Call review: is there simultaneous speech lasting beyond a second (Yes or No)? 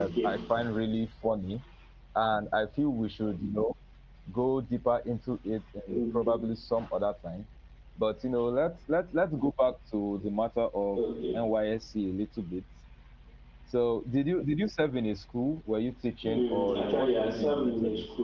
Yes